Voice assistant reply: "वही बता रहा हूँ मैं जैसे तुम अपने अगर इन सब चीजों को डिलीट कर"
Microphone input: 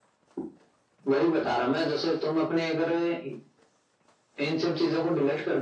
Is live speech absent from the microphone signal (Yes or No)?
Yes